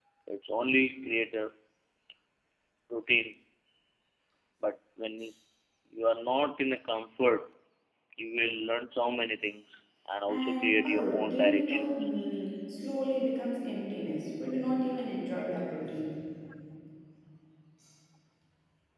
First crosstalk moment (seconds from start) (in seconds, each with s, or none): 10.3 s